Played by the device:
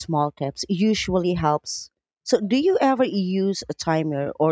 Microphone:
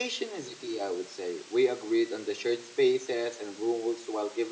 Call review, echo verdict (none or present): none